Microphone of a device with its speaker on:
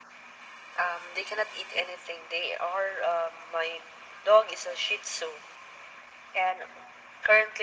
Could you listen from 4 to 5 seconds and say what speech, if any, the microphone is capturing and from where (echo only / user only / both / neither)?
echo only